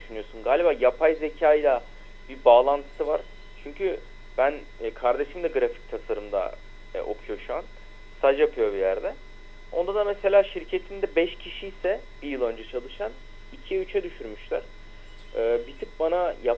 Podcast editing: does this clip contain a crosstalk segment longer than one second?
No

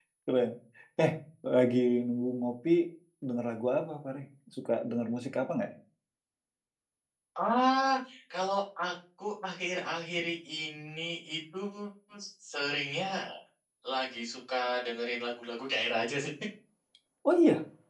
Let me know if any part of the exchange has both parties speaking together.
No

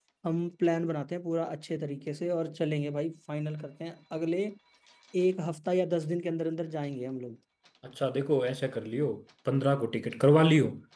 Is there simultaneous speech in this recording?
No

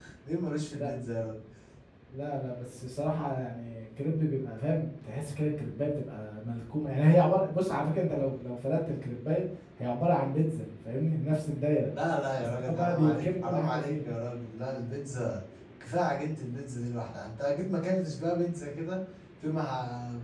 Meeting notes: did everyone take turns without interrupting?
No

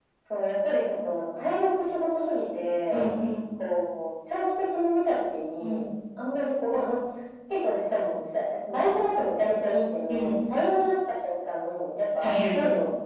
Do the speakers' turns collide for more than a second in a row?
No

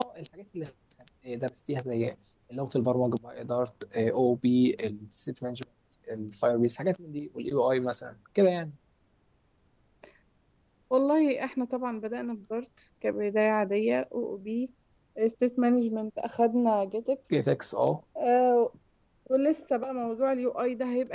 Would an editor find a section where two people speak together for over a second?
No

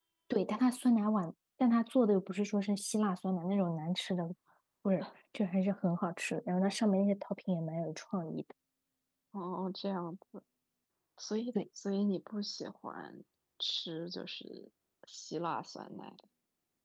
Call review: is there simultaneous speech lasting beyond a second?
No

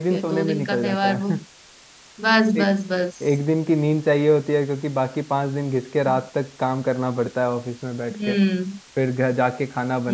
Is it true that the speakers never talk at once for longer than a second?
No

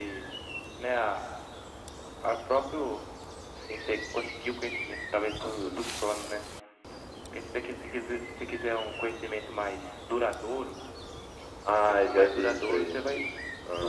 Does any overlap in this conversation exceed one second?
Yes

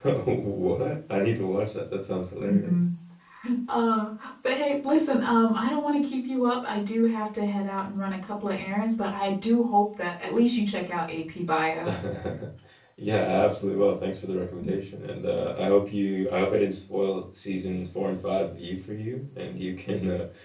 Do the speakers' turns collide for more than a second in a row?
No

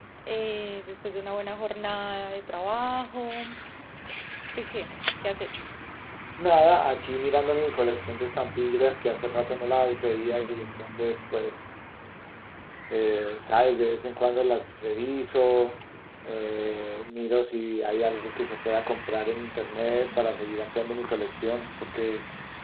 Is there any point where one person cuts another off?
No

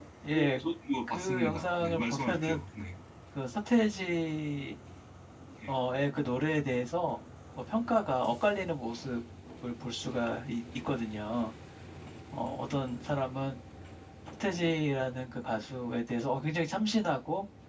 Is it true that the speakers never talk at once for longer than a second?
No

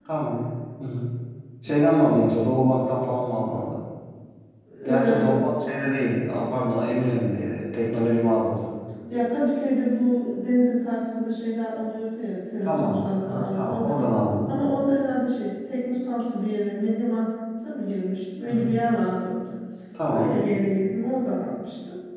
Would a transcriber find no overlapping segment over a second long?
No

